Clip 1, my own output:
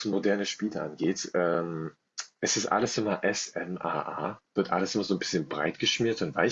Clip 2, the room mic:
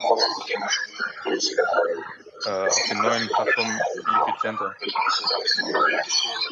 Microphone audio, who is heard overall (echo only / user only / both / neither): both